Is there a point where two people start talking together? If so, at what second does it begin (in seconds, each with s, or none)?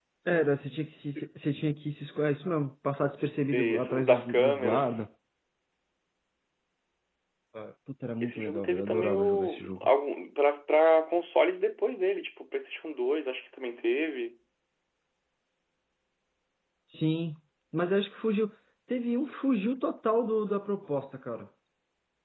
3.5 s